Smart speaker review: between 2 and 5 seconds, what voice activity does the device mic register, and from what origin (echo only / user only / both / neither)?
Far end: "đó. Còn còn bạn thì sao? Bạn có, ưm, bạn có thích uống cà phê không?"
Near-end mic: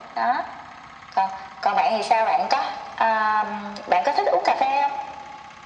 echo only